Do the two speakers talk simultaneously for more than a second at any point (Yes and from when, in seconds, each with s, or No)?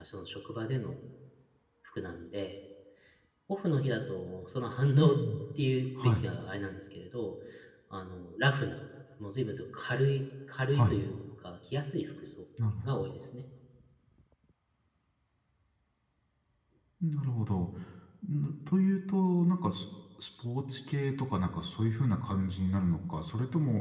No